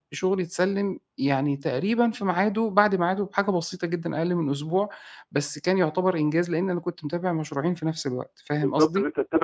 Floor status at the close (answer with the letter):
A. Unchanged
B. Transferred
B